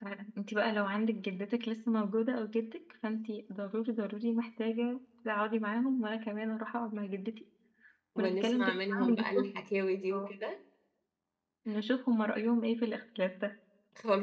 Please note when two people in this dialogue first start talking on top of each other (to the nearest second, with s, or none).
8 s